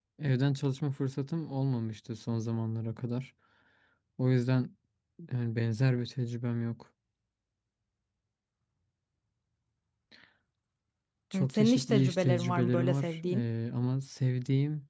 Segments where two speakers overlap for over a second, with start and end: 11.3-13.4

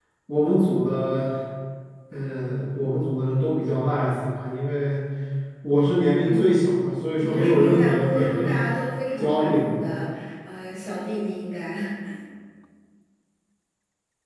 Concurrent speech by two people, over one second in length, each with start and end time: 7.2-8.6

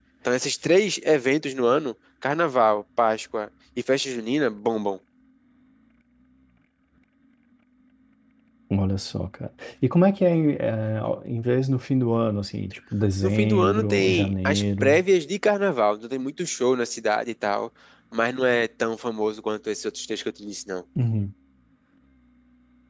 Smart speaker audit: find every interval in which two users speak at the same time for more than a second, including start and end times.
13.2-15.0

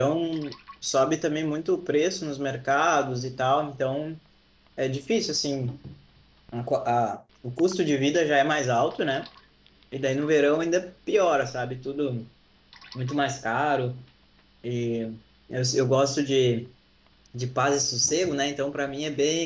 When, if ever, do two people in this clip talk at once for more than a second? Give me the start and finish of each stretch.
none

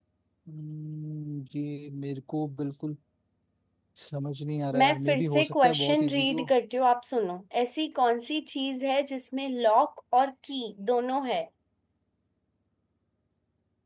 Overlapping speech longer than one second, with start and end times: 4.7-6.4

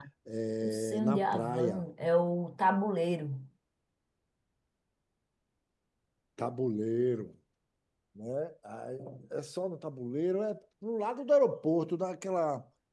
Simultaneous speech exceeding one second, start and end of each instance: 0.6-1.8

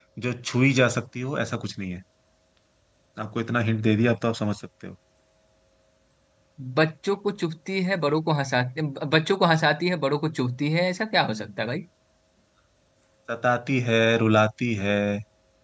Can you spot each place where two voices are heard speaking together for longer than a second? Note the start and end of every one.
none

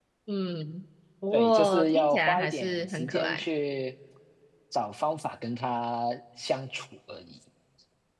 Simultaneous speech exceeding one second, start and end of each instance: 1.3-3.4

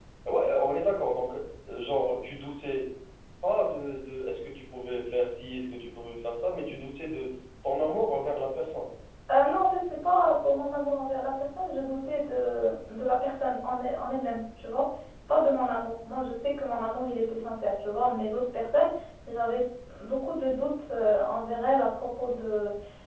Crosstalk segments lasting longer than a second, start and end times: none

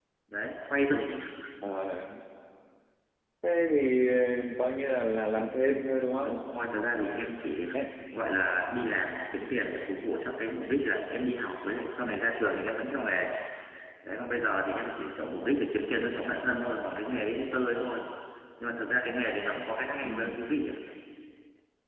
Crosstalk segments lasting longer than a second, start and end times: none

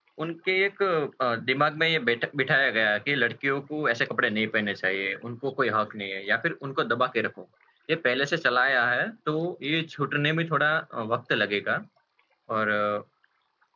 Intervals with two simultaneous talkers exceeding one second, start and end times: none

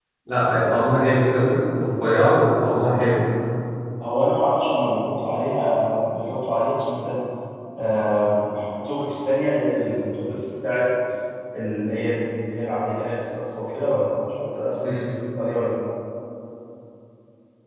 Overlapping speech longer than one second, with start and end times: none

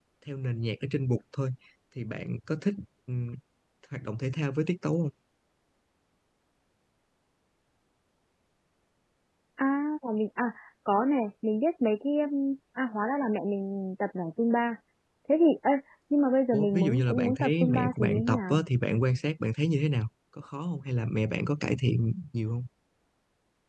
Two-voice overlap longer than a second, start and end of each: 16.5-18.6

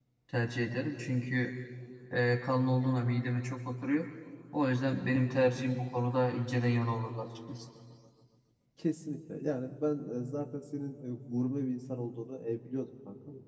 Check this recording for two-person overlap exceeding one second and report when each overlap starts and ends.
none

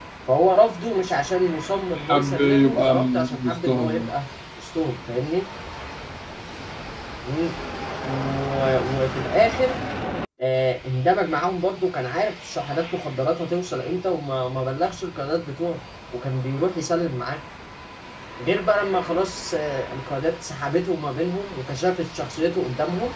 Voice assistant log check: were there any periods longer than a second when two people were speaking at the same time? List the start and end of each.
1.9-4.1

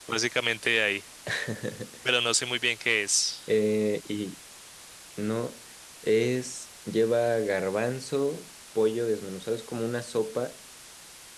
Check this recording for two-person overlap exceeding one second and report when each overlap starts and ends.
none

